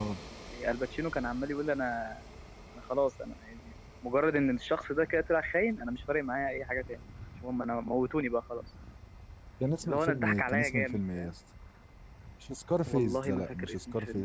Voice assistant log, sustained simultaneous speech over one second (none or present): present